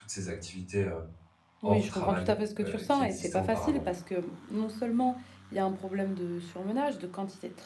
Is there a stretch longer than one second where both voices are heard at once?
Yes, from 1.6 s

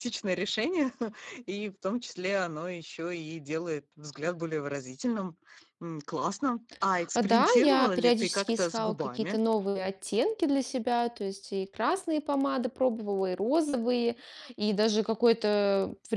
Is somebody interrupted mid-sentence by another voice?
Yes, from 6.9 s

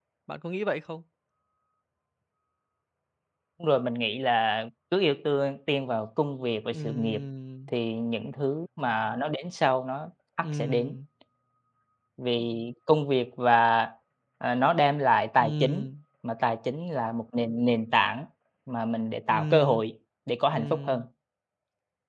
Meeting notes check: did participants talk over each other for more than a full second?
No

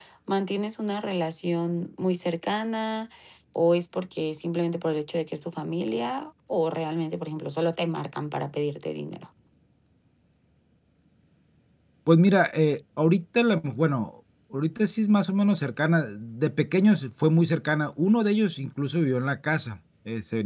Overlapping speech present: No

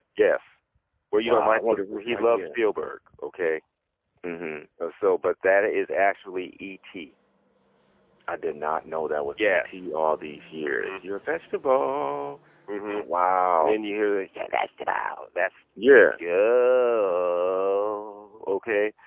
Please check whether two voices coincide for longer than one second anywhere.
Yes, from 1.2 s

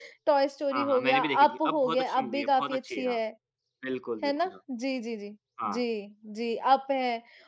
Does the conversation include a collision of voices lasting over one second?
Yes, from 0.7 s

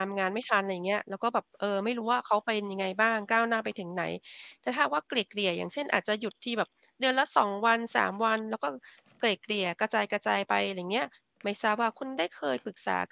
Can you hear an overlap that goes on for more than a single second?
No

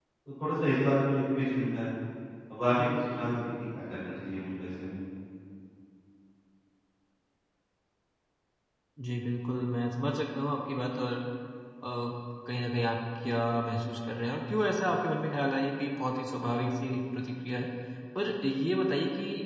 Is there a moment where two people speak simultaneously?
No

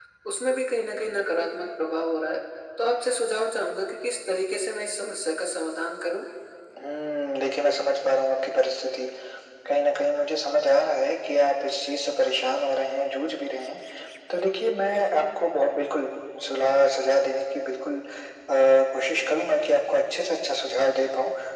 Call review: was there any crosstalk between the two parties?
No

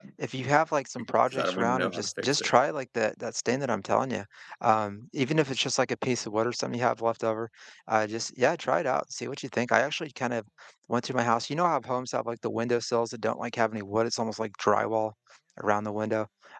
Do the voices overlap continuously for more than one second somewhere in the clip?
Yes, from 1.0 s

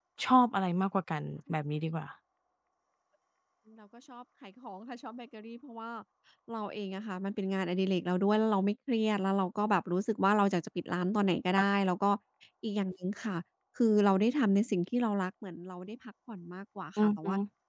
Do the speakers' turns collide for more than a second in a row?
No

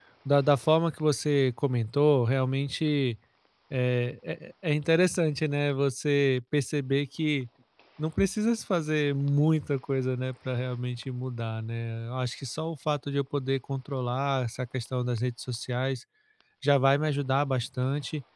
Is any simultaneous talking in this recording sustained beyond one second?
No

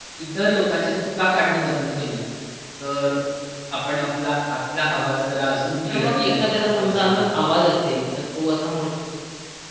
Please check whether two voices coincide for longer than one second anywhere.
Yes, from 5.9 s

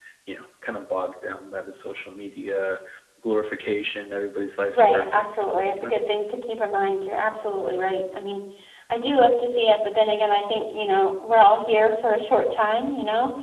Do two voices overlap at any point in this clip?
Yes, from 4.7 s

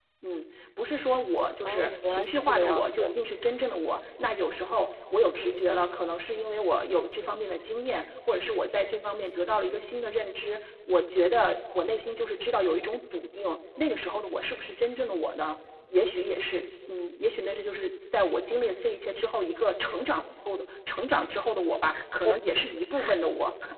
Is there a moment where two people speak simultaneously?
Yes, from 1.6 s

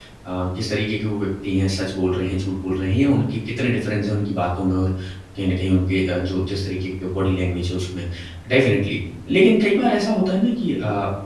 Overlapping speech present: No

